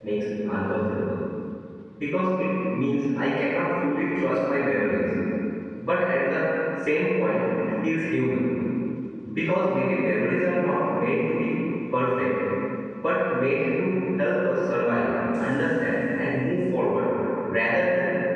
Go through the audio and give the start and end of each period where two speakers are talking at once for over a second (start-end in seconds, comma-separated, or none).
none